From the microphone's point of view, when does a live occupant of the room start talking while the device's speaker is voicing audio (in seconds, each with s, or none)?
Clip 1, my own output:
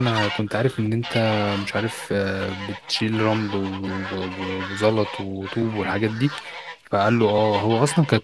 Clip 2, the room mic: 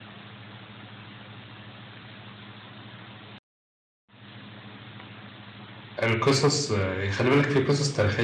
6.0 s